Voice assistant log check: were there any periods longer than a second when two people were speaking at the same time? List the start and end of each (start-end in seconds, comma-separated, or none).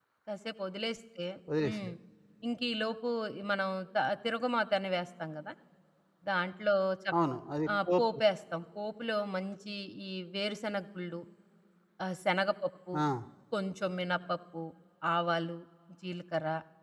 none